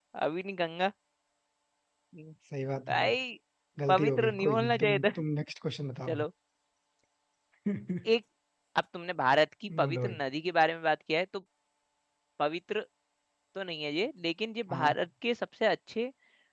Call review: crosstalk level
present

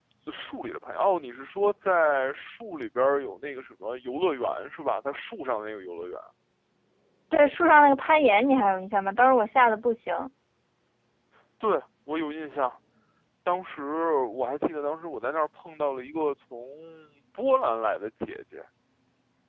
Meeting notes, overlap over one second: none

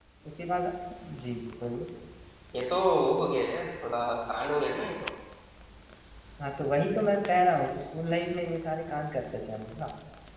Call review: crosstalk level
none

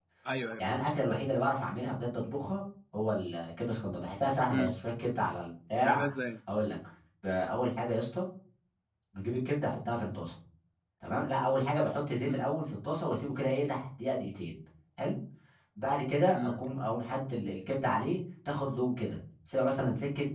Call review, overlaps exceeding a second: none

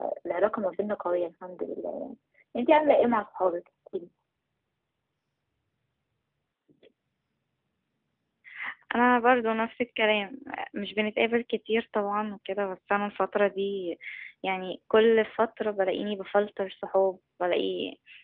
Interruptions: none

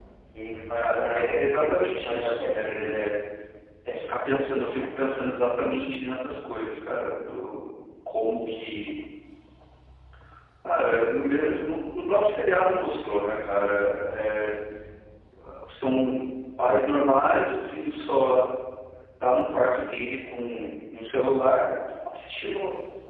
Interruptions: present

